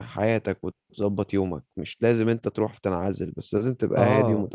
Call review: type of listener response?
taking over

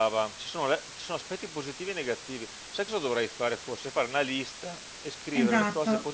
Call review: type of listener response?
taking over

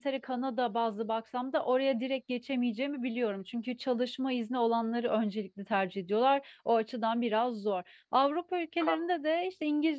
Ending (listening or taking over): listening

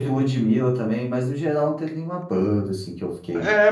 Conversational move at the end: taking over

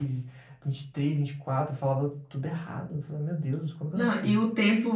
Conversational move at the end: taking over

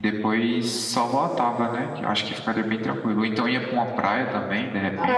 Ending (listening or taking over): taking over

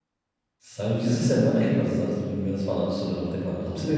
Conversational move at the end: taking over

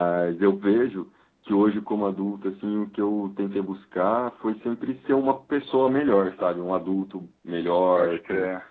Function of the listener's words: listening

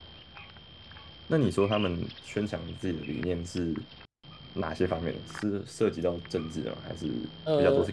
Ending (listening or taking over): taking over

